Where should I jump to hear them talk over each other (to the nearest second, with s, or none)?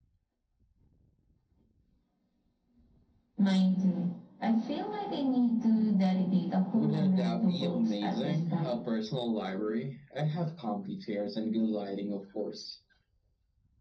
7 s